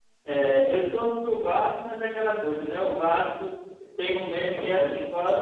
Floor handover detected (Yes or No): No